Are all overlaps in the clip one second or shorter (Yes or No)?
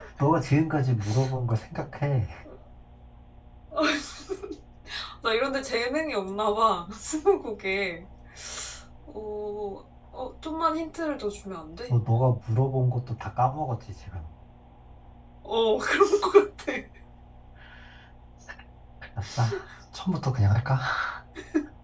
Yes